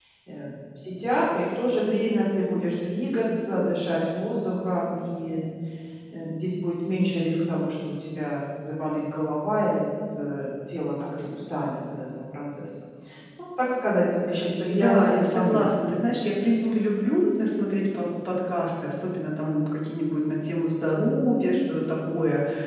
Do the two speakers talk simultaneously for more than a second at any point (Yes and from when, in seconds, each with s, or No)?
Yes, from 14.7 s